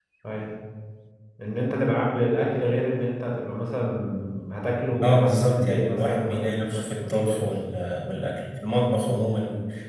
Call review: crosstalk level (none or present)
present